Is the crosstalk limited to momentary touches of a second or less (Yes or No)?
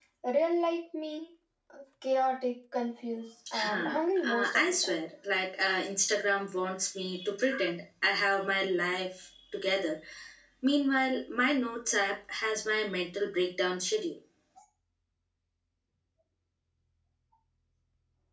No